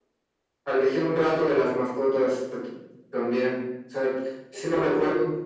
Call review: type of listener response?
listening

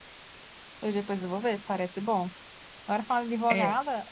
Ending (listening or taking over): listening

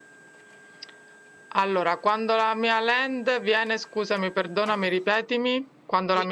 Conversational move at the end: taking over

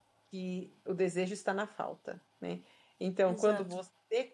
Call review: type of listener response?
listening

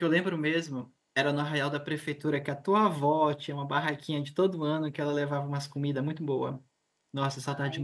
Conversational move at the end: taking over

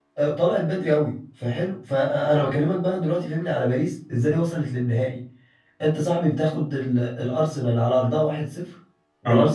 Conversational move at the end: listening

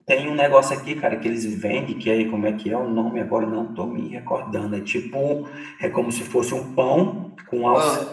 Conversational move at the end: listening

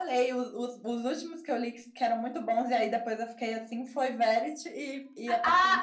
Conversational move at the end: taking over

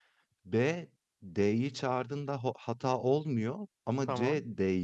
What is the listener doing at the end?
listening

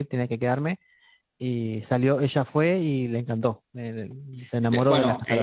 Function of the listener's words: taking over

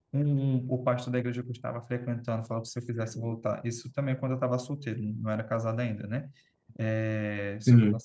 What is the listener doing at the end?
listening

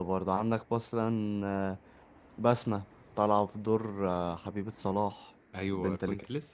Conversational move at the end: taking over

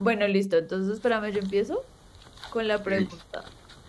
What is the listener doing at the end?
listening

